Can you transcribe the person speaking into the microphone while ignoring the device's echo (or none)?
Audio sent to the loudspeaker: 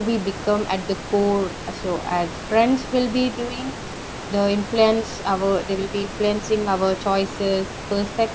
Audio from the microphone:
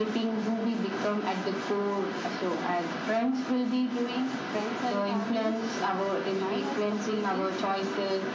friends and families do not define us completely,